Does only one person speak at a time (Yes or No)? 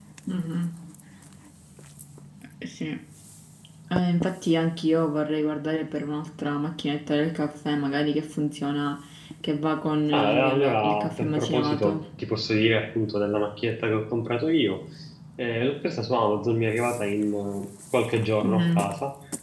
No